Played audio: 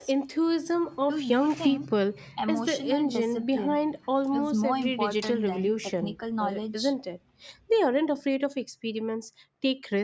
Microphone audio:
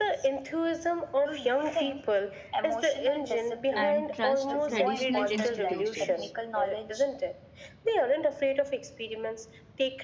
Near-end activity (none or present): present